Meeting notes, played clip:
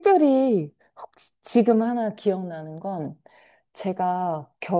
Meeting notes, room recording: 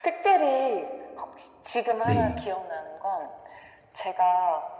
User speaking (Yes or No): Yes